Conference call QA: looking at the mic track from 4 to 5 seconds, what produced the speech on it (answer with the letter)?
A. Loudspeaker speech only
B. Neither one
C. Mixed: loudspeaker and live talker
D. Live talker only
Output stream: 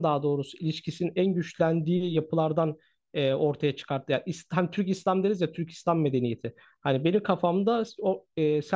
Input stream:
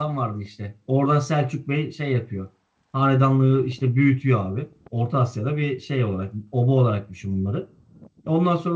D